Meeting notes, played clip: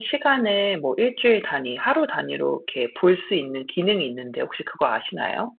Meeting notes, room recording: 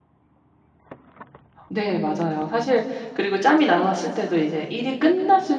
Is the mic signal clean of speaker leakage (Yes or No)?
Yes